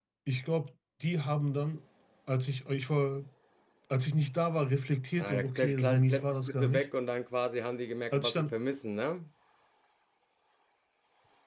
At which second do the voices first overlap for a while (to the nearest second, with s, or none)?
5 s